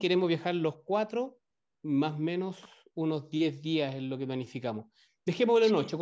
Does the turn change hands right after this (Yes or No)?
No